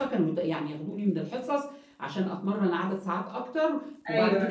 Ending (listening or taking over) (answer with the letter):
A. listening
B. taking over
A